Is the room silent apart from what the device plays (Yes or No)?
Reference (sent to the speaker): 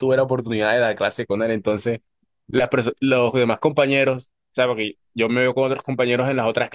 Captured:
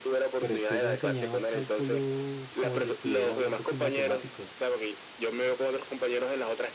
No